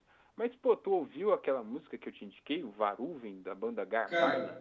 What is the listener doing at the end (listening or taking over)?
taking over